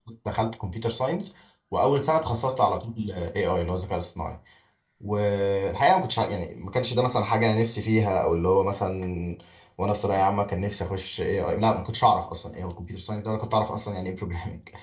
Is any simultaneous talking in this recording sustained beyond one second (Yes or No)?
No